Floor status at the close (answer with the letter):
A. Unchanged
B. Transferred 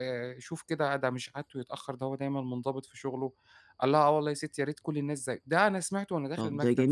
B